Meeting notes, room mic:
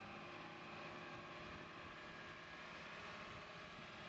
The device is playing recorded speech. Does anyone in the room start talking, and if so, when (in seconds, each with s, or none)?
none